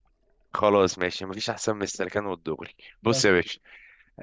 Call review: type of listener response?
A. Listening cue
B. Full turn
A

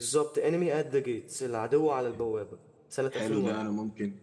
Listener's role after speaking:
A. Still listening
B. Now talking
B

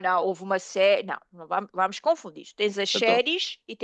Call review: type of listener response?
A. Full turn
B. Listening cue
B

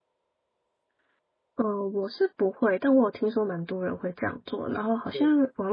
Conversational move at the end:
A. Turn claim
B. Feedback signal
B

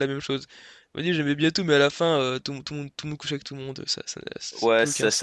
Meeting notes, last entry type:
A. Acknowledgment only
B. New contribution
B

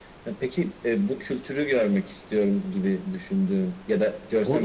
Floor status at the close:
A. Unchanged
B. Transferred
B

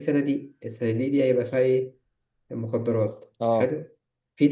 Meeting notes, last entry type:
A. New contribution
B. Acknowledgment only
B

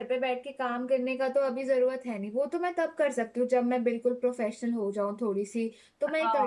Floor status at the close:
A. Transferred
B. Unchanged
A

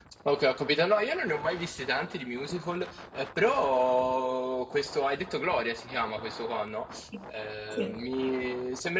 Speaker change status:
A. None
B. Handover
A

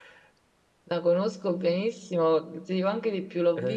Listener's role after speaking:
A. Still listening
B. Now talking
A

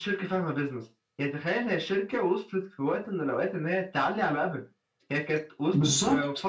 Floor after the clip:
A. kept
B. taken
A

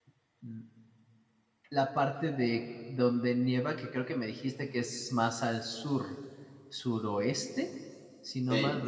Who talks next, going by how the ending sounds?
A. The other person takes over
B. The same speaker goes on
A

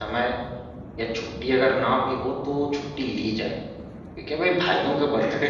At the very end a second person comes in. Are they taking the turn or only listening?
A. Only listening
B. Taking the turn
A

